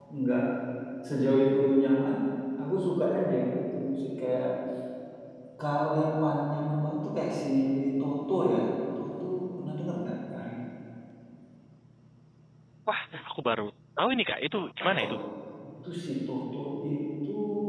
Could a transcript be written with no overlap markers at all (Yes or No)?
Yes